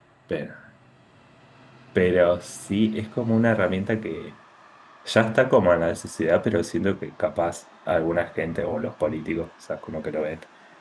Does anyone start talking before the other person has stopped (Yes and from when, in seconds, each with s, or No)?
No